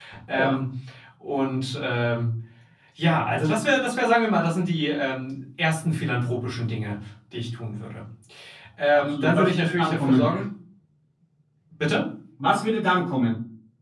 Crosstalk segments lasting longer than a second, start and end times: 8.9-10.3

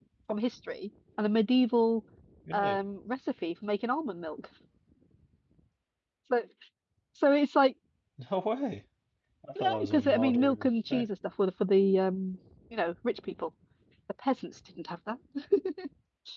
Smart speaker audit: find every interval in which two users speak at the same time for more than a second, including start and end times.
9.6-11.1

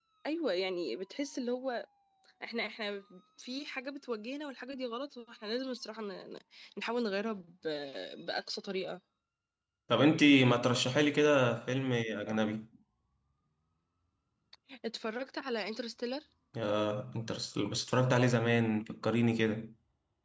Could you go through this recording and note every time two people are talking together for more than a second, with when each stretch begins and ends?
none

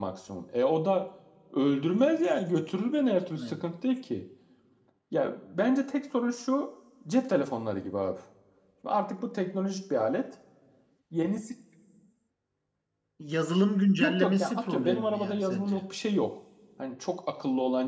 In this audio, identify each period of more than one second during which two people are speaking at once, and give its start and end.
13.9-15.8

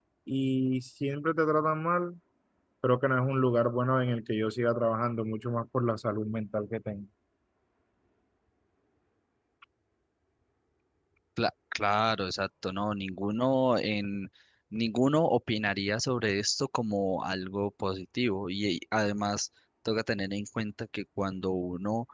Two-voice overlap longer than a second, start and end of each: none

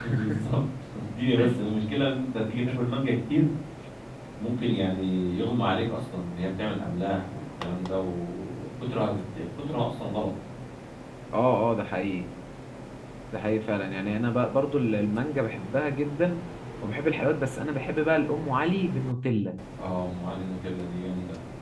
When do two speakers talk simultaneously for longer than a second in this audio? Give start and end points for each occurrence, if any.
none

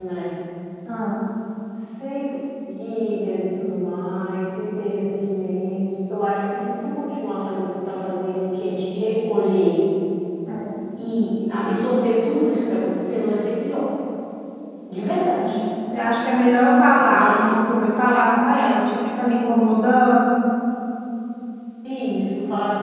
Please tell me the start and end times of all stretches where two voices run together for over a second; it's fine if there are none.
none

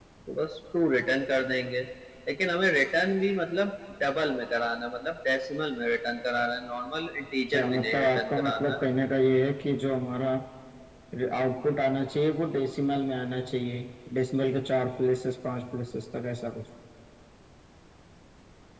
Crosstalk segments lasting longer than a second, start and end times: 7.5-8.7

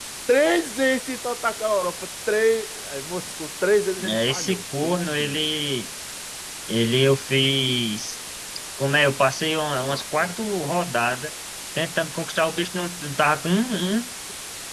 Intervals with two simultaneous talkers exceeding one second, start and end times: 4.0-5.4

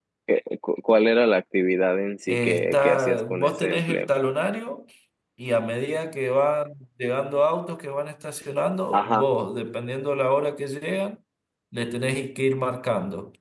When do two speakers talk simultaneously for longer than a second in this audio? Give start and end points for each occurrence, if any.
2.3-4.1

